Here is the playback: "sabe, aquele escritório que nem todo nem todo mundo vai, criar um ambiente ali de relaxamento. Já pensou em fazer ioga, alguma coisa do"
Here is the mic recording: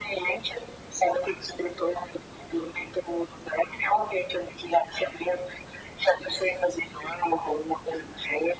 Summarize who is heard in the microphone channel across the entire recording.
echo only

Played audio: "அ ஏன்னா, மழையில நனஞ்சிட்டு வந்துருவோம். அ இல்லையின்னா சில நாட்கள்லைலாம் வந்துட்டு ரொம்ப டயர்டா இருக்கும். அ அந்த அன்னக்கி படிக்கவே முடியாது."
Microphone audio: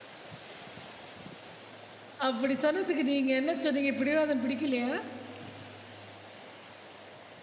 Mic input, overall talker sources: user only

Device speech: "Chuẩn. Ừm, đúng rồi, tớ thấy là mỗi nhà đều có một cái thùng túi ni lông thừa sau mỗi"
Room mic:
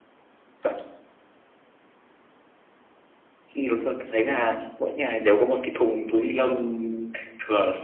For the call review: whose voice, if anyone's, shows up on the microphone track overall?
echo only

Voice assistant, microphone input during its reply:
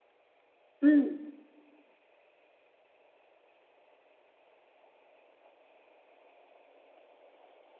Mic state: user only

